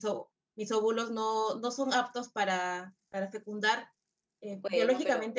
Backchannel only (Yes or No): Yes